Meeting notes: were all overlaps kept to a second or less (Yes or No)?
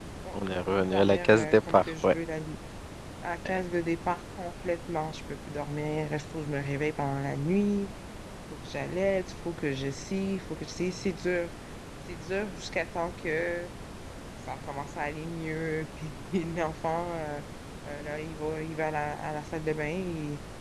No